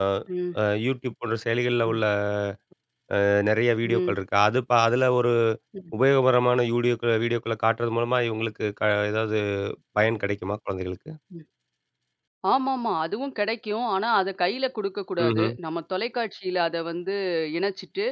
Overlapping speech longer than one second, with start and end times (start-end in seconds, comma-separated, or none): none